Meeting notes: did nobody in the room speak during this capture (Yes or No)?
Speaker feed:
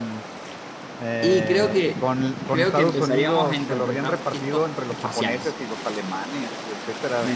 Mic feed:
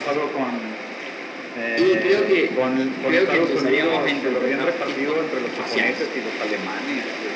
Yes